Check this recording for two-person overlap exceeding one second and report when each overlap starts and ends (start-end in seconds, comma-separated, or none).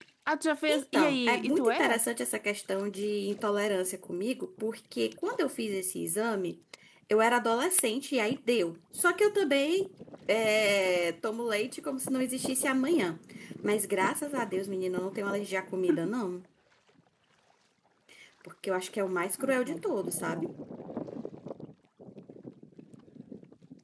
0.7-2.0